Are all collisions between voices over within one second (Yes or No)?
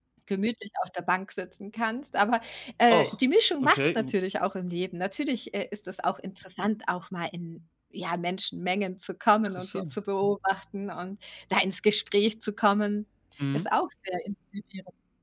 Yes